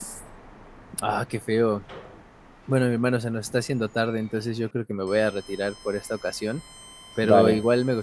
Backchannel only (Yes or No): Yes